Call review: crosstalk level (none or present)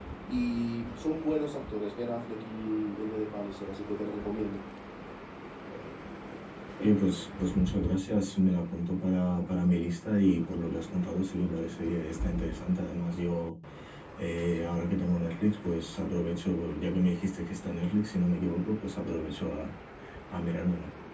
none